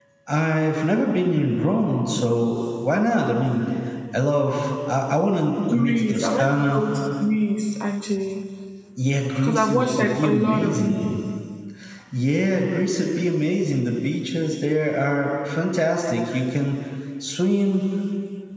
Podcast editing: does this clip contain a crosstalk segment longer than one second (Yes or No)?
Yes